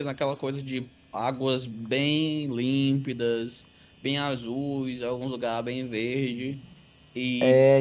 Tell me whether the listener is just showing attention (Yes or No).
Yes